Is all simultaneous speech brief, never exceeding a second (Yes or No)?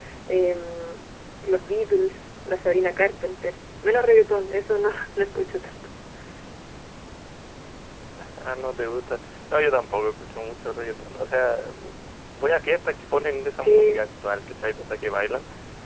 Yes